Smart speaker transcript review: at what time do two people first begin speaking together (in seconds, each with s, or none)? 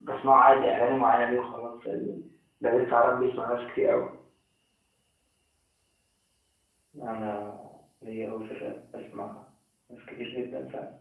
none